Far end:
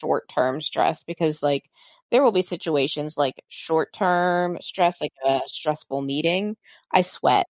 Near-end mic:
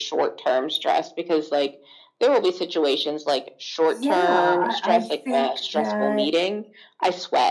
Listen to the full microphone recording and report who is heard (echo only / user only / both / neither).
both